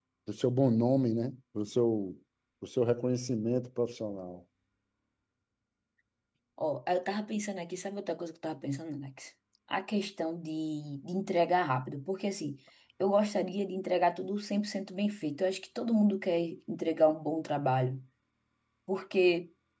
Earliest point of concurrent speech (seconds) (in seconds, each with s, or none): none